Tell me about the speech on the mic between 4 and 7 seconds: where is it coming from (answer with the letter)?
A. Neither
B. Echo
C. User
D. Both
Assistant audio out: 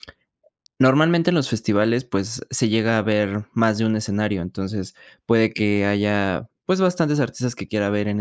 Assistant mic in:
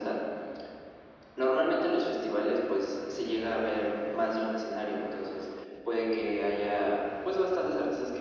B